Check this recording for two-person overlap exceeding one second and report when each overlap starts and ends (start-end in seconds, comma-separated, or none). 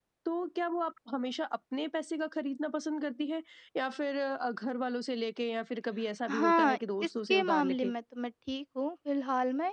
6.3-7.9